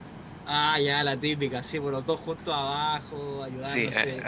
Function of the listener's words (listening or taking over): taking over